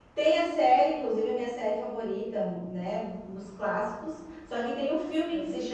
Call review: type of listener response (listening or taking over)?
listening